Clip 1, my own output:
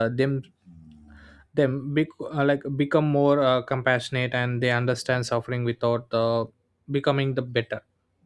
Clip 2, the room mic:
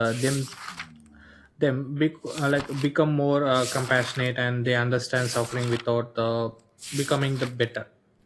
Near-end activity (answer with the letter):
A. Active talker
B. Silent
B